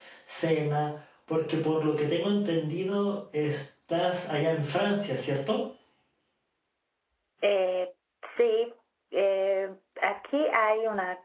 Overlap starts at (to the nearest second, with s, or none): none